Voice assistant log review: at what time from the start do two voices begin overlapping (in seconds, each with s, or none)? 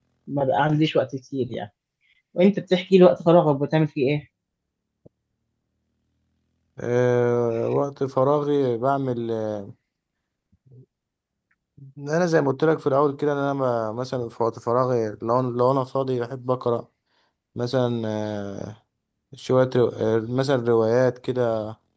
none